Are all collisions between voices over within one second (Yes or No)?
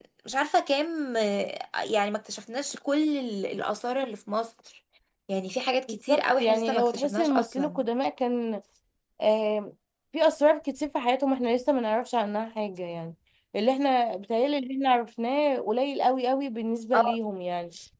No